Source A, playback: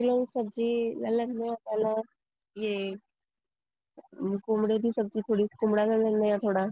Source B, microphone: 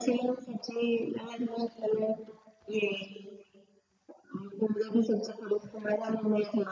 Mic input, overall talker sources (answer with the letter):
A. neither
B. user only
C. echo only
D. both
C